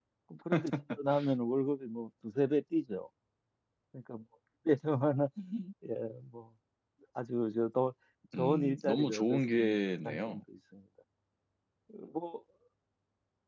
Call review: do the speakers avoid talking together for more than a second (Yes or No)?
No